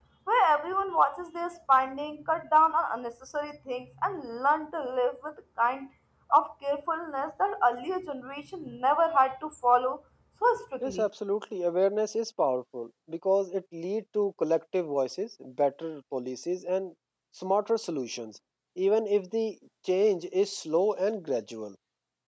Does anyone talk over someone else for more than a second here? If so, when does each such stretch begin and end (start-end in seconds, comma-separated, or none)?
none